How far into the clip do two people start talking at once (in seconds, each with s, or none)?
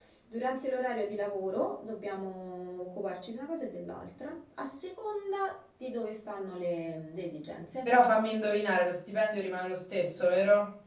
none